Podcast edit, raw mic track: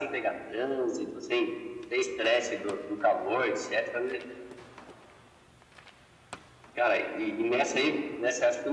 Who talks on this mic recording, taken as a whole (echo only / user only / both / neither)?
echo only